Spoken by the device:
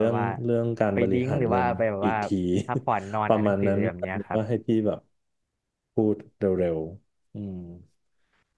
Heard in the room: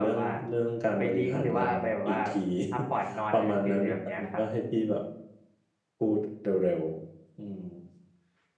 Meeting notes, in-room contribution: none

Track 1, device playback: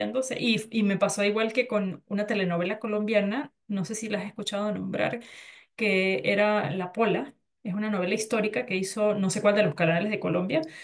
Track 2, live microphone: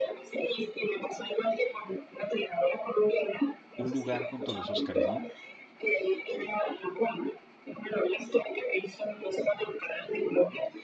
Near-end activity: present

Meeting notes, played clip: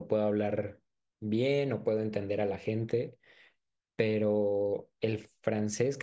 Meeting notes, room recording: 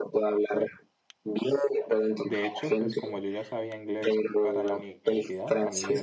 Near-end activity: present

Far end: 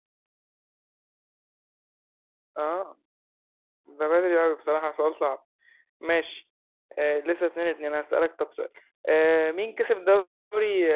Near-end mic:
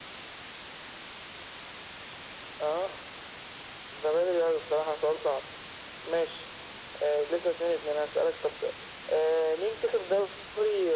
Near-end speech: none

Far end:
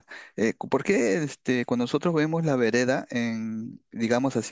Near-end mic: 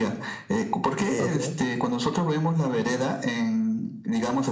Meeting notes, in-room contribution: present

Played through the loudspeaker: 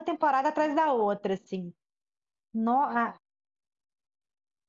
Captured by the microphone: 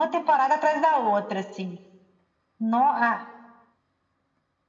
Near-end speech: none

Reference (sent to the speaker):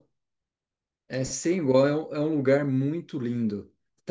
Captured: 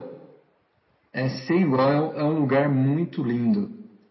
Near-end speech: none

